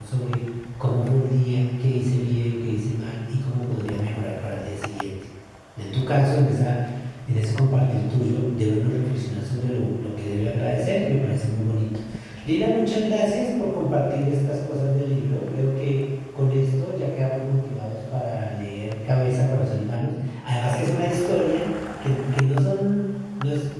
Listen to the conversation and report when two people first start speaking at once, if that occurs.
none

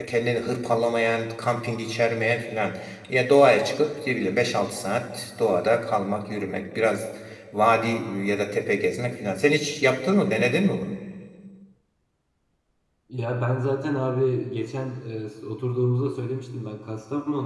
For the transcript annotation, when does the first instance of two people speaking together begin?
none

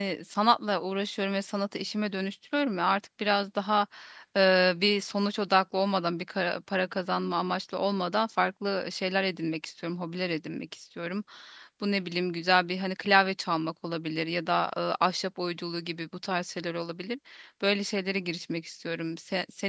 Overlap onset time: none

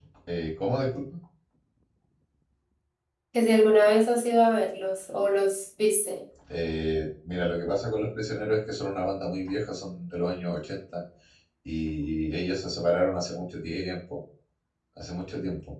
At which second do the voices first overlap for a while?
none

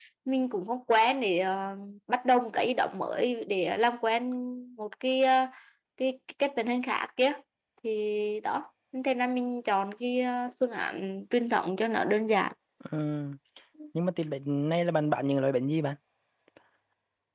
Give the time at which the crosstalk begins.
none

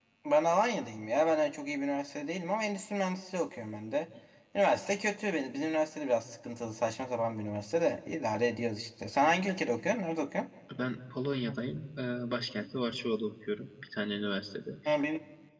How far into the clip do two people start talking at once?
none

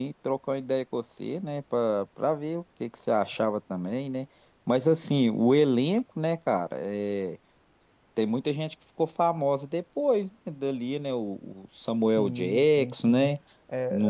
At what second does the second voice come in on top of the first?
12.2 s

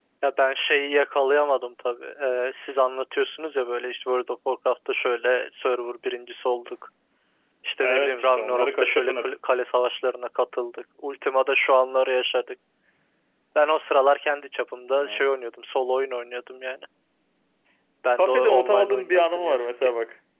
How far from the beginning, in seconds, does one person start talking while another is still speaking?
7.8 s

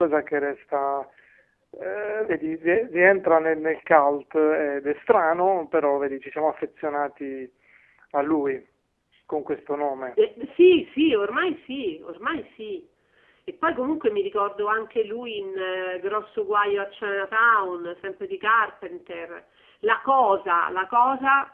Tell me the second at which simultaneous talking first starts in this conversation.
none

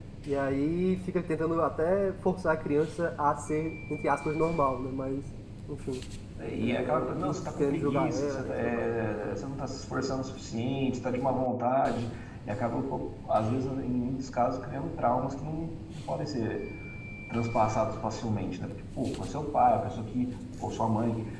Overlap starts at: 6.6 s

